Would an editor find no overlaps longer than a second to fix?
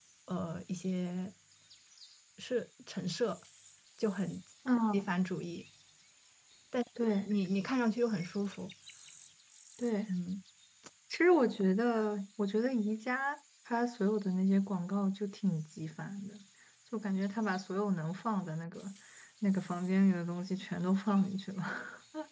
Yes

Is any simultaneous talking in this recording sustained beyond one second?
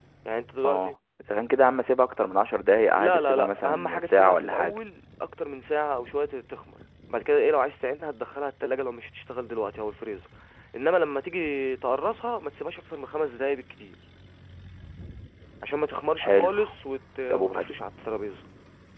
Yes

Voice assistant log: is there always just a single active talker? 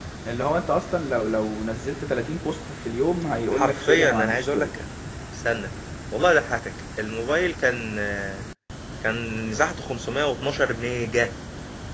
No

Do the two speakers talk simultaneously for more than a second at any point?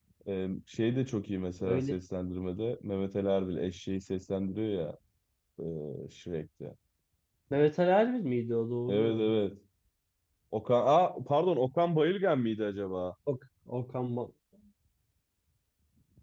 No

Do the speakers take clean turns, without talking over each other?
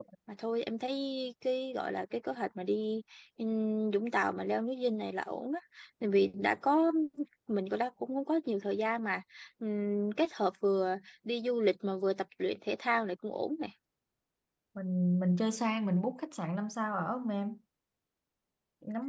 Yes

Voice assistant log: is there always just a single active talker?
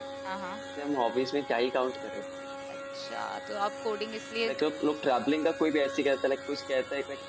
Yes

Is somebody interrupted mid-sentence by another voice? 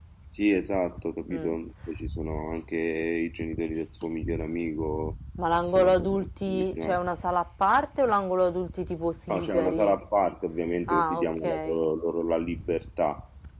Yes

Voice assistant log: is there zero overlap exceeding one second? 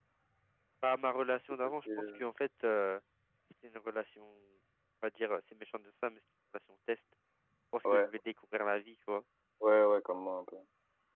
Yes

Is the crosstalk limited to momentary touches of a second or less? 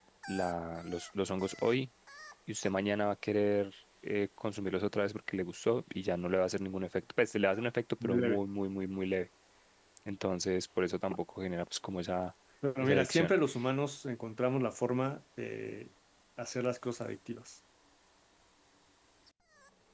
Yes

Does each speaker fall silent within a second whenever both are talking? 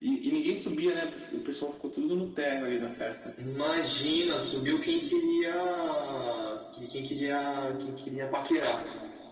Yes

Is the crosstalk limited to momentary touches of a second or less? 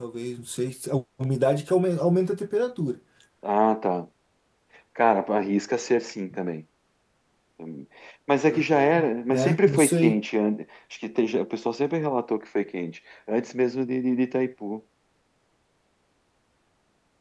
No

